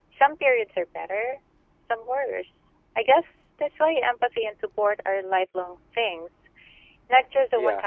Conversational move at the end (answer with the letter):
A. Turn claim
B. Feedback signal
A